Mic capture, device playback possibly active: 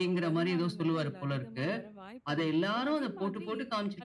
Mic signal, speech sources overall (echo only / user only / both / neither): both